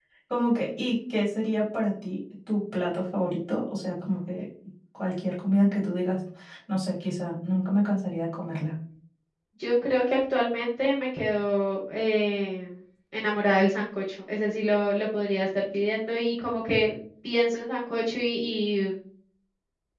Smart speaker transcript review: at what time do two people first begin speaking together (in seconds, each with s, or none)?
none